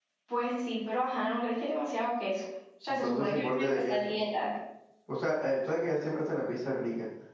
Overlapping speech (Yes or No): Yes